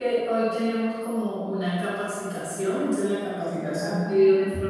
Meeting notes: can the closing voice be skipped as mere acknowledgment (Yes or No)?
Yes